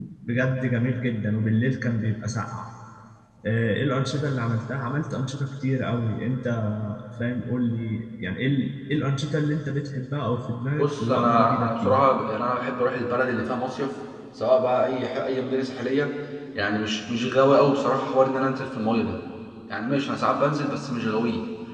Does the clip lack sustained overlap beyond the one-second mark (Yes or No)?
No